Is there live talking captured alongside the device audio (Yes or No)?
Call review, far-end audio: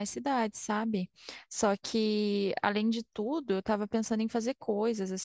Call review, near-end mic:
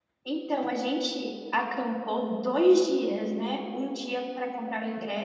Yes